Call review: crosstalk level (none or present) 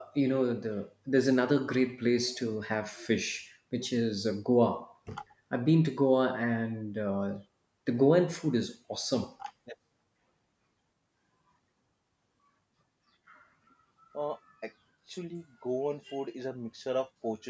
none